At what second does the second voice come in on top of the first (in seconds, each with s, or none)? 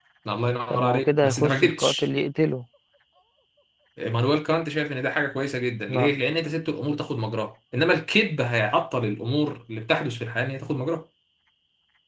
0.7 s